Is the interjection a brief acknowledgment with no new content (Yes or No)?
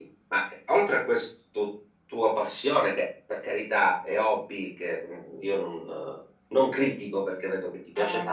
Yes